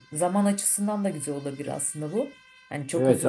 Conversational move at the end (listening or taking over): taking over